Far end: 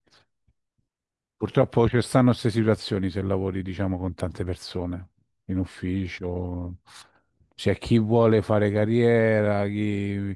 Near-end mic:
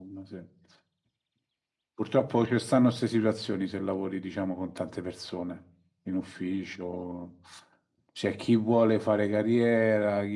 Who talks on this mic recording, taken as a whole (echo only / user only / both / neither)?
echo only